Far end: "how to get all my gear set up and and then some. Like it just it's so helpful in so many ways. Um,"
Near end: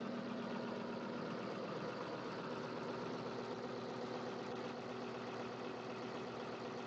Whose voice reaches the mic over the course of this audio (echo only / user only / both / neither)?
neither